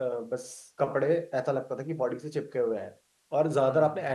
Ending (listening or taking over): listening